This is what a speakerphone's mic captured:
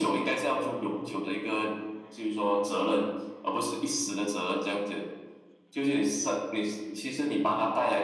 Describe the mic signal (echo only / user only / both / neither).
echo only